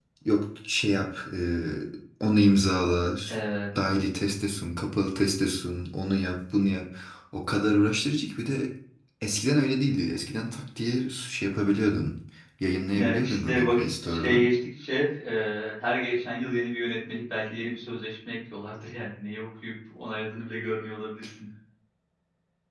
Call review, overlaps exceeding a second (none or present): present